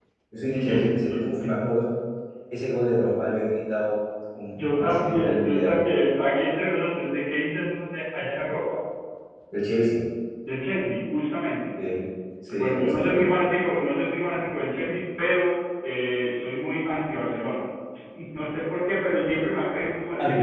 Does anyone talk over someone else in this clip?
Yes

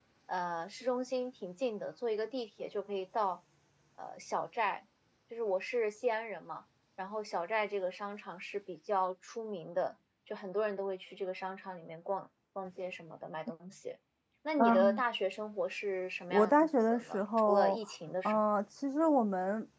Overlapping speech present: Yes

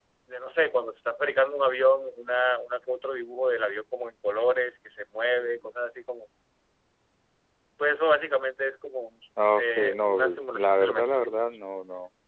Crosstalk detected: Yes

